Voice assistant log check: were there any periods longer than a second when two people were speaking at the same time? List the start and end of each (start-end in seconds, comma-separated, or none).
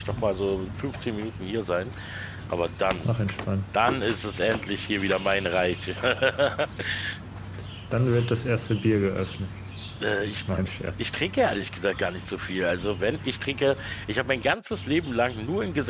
none